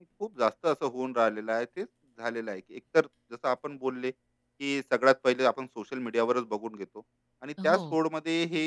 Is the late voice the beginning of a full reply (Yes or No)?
No